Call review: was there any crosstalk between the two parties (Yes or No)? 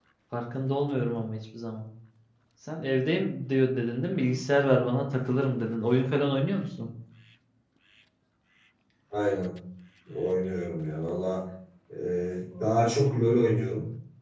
No